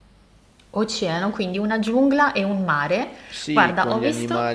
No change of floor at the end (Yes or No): No